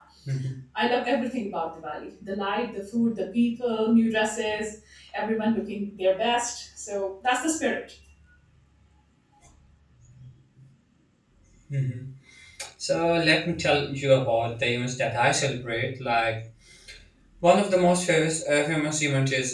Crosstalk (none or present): none